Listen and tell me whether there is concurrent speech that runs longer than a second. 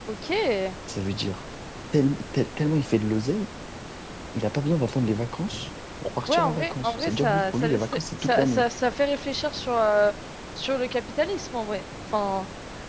Yes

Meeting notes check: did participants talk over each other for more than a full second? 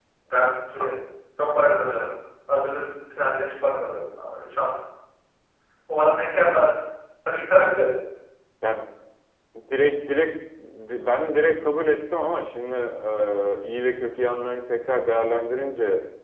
No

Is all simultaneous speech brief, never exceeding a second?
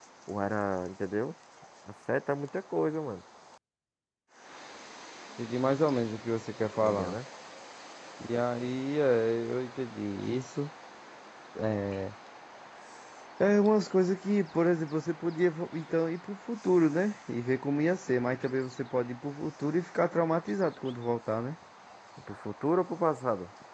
Yes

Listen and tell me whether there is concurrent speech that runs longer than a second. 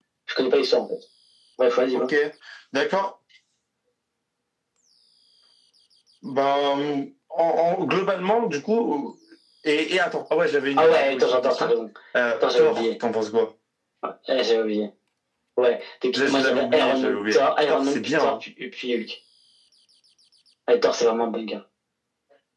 Yes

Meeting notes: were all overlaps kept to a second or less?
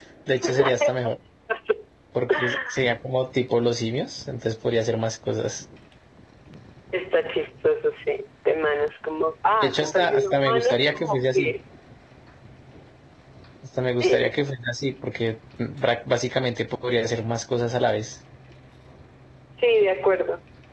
No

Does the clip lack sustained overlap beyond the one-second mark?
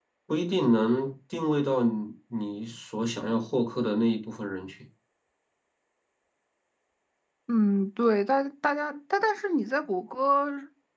Yes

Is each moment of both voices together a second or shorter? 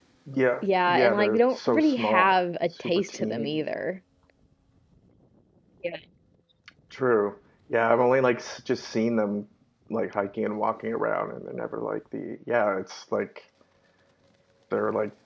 No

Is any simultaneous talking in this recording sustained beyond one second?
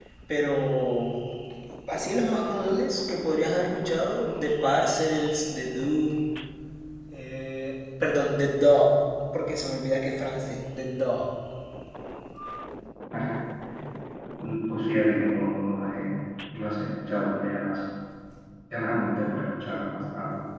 No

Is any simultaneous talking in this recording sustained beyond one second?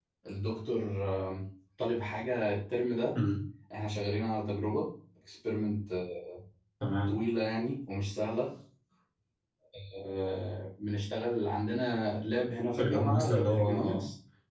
Yes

